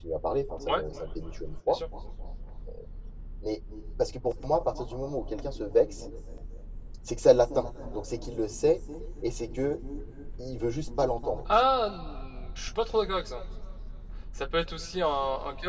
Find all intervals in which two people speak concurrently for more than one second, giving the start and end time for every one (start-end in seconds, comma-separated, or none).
none